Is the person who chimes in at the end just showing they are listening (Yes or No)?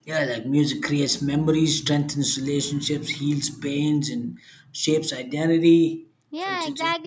No